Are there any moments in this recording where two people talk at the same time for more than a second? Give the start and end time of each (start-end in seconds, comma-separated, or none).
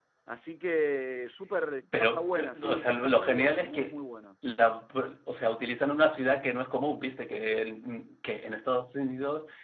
2.1-4.0